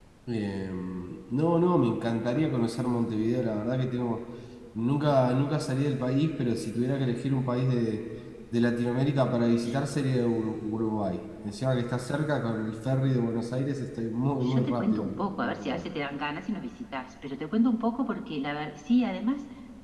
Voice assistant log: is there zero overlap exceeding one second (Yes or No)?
No